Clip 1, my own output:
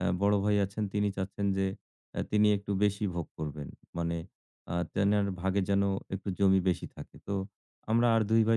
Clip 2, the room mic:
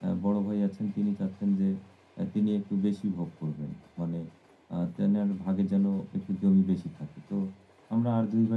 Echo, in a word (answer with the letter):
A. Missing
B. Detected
B